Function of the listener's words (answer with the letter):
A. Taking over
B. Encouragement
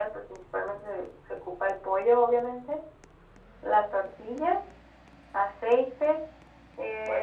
A